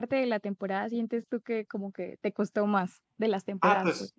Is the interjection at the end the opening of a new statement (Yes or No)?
Yes